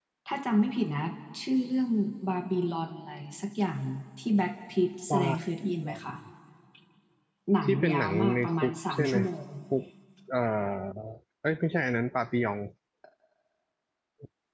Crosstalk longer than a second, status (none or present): present